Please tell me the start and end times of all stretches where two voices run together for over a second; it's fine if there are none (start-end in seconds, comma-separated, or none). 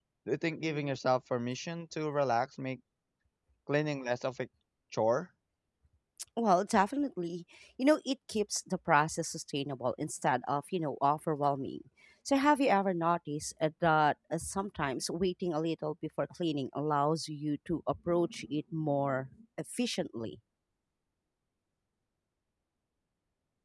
none